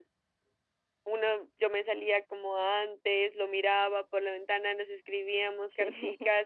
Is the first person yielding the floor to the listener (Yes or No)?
No